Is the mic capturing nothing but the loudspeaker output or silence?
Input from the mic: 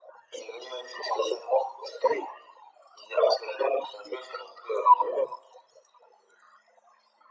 Yes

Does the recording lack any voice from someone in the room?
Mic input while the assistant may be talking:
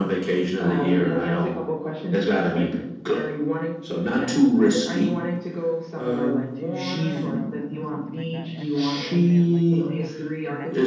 No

